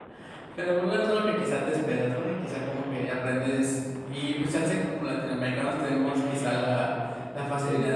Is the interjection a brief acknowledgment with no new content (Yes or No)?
Yes